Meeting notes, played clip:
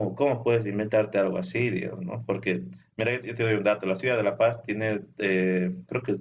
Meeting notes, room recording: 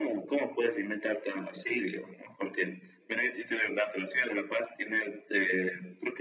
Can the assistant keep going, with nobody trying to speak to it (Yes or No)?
Yes